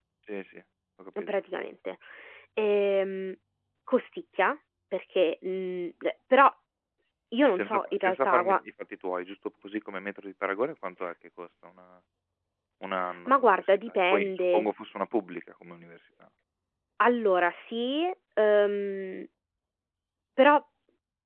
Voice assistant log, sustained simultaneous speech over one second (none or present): present